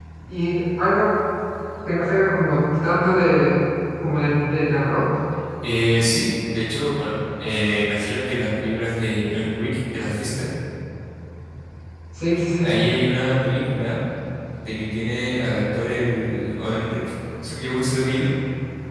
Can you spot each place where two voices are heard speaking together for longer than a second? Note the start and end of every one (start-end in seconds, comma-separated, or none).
none